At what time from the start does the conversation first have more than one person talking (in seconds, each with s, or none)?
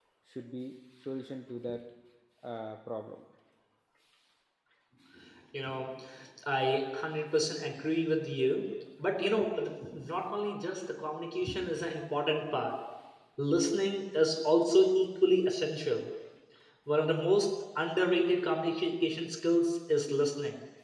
none